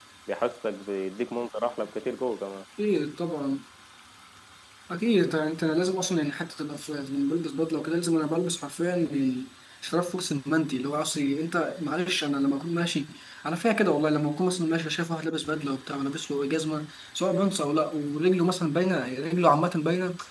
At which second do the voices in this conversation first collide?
none

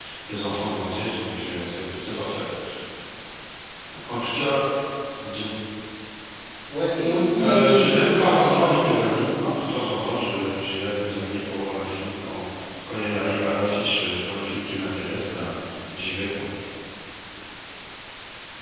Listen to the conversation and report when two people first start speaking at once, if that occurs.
7.4 s

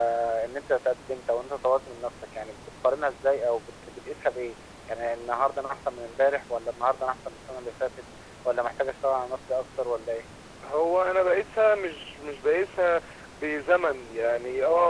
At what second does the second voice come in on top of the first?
none

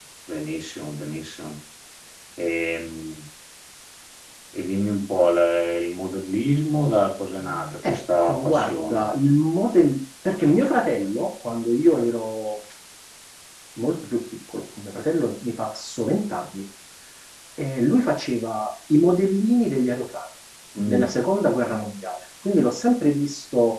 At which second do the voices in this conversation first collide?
7.9 s

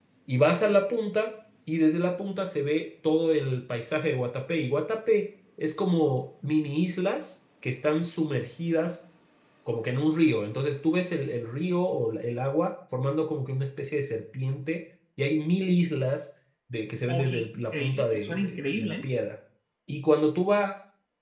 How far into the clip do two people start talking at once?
17.0 s

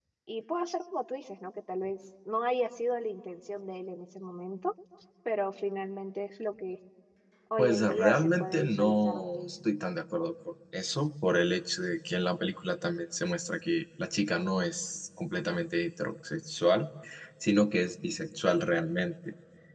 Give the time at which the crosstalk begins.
7.6 s

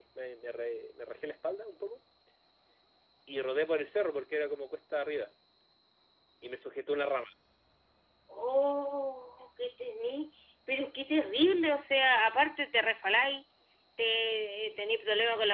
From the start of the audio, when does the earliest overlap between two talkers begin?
none

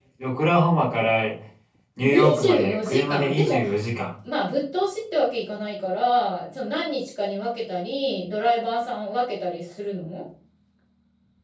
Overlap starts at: 2.0 s

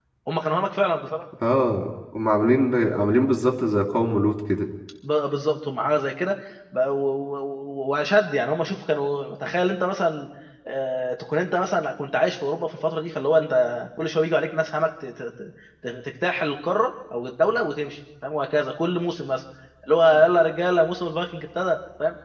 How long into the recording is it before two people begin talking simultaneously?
none

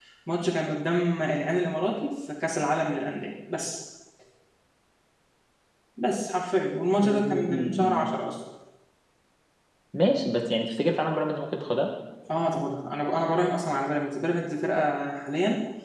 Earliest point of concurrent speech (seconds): 7.0 s

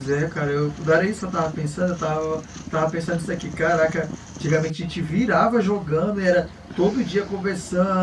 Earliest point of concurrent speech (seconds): none

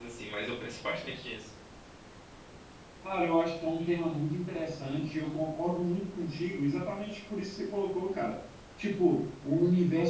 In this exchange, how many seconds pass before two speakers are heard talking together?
none

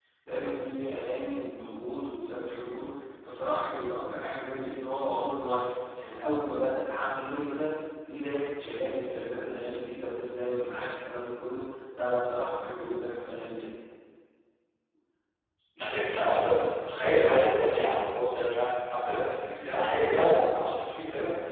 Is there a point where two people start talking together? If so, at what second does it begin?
none

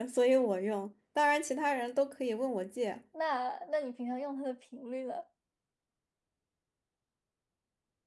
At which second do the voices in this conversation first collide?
none

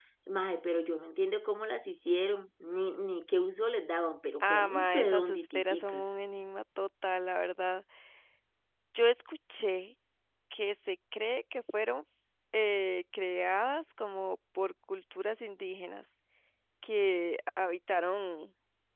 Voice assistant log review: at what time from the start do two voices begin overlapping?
4.4 s

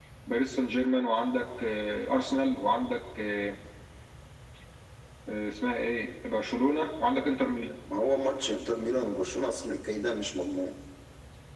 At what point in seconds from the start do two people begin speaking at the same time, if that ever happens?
none

